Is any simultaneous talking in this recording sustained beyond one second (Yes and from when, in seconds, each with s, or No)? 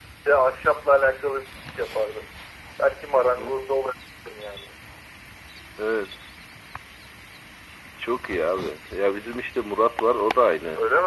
No